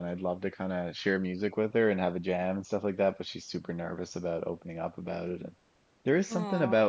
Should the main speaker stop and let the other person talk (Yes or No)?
No